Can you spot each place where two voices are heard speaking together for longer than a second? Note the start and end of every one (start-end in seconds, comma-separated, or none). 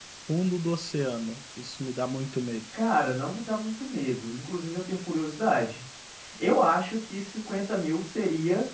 none